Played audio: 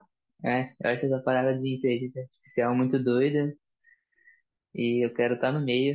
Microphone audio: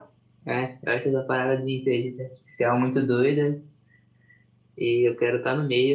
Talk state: echo only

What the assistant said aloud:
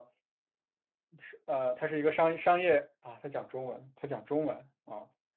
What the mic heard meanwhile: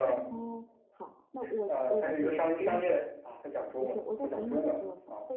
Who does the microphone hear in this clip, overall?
both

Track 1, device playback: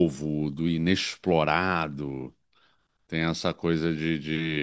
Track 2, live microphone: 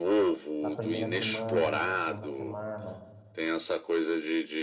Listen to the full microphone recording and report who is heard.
both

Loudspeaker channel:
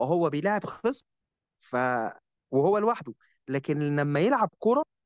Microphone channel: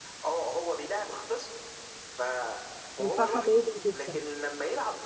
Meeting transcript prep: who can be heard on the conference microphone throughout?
both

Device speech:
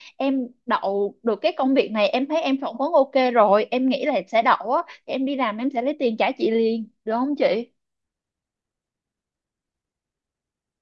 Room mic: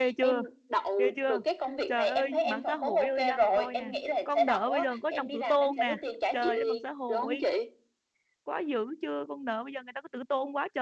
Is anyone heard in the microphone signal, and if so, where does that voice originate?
both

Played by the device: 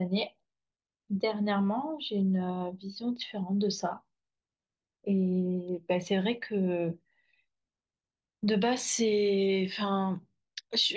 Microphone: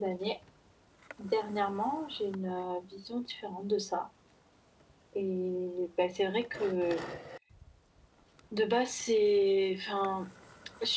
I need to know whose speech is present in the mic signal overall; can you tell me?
echo only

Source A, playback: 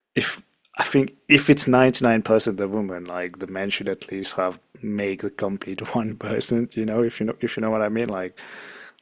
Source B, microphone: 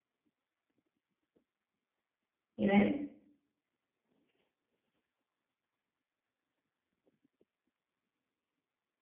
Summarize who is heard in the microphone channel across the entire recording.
user only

